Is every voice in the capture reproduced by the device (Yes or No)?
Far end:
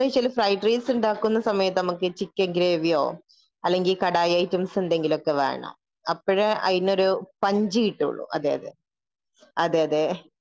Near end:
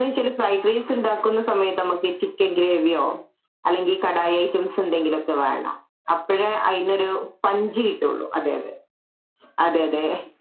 Yes